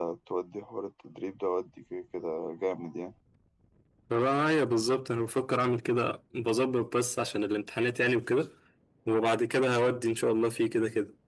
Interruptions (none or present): none